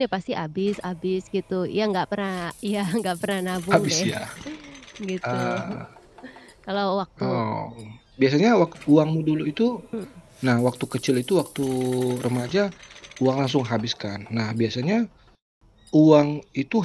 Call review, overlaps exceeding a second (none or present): none